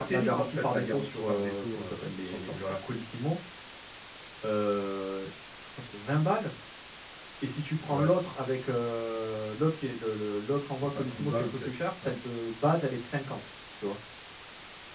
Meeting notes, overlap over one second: present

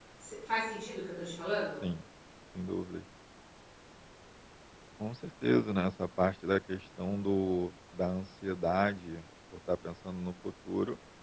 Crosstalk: none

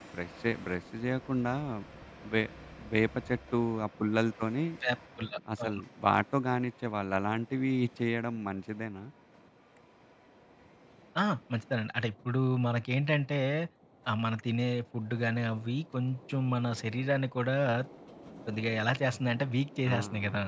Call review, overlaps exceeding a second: none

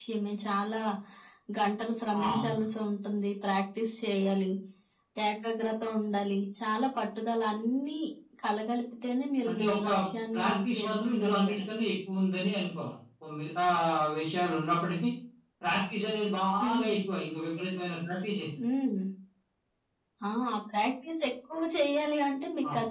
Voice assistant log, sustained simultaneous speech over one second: present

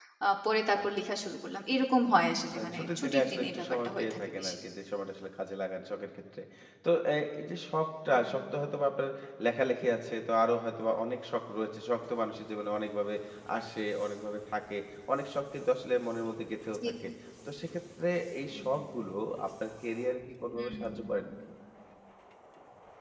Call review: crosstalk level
present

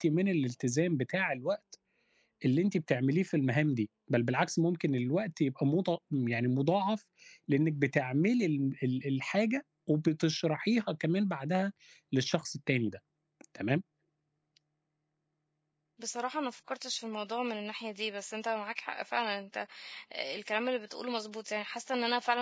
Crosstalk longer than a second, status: none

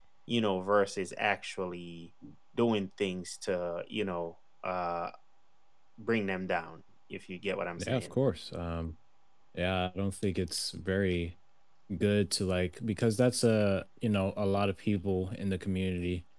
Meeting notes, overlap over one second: none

